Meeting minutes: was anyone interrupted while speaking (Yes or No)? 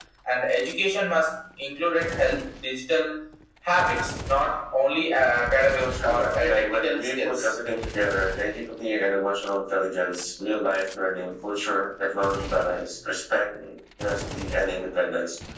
Yes